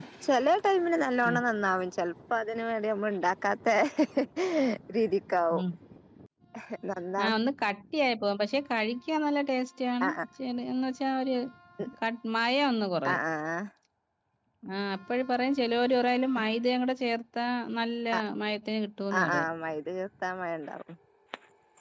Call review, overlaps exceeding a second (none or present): none